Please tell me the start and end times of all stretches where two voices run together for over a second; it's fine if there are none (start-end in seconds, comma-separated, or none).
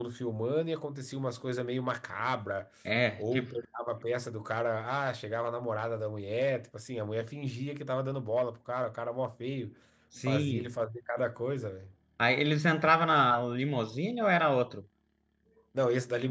none